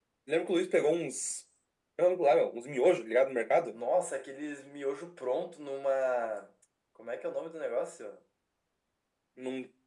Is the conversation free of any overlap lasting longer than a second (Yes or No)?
Yes